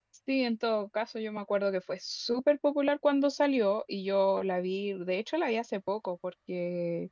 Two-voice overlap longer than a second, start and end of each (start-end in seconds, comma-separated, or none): none